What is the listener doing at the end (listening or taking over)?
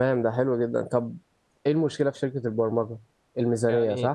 taking over